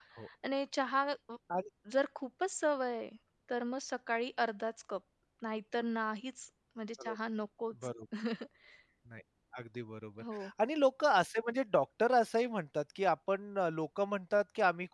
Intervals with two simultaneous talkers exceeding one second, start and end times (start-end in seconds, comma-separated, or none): none